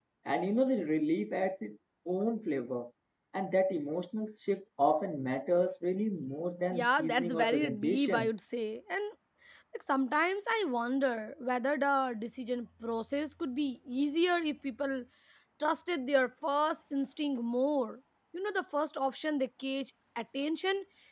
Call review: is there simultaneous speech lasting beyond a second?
Yes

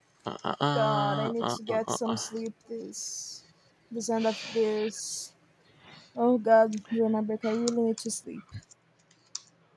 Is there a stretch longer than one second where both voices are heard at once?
Yes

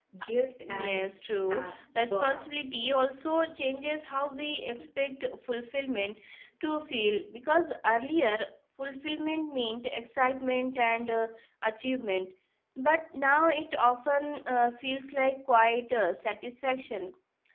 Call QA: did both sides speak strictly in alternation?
No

